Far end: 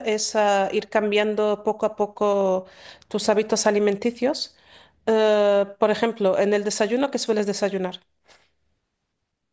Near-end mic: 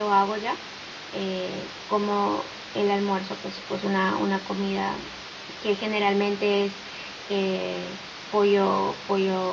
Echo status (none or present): none